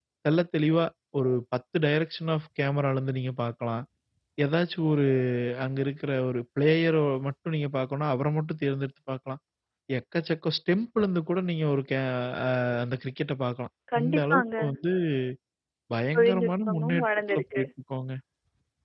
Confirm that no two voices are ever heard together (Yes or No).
No